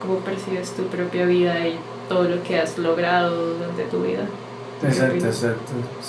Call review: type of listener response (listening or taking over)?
taking over